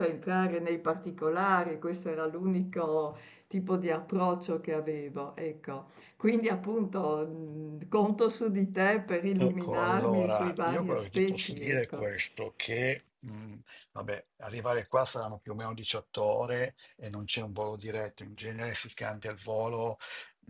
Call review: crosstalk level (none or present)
present